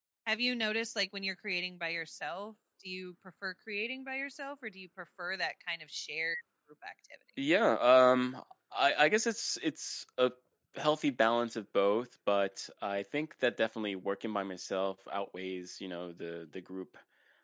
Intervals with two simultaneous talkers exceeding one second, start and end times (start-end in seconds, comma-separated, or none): none